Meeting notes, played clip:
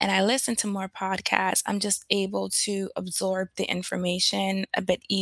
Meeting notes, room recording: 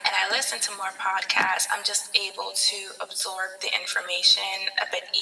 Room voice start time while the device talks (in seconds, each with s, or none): none